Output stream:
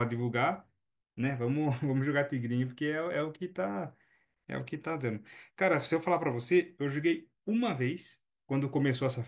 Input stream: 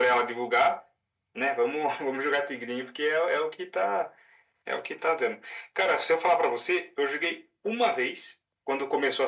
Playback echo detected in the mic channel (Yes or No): Yes